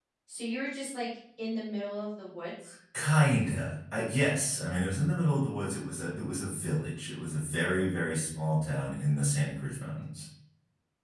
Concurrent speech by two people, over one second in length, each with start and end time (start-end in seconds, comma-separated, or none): none